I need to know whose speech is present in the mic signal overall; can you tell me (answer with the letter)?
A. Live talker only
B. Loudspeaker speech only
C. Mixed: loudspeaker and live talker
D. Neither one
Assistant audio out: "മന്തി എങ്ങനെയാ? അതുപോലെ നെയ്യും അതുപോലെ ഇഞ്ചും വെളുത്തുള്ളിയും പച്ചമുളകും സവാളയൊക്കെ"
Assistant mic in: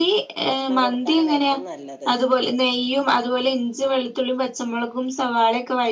C